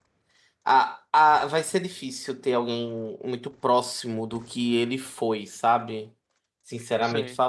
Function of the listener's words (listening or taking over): listening